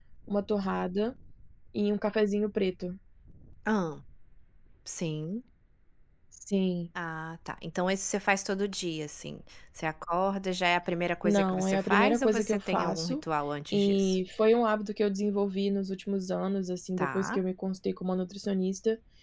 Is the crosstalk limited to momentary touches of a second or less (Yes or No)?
No